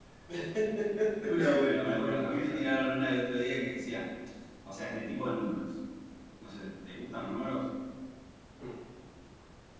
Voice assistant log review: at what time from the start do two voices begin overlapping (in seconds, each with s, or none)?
1.2 s